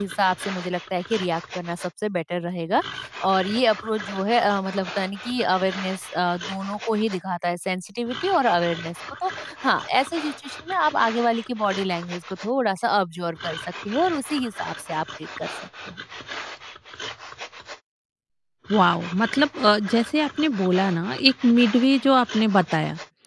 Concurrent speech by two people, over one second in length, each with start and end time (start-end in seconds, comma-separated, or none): none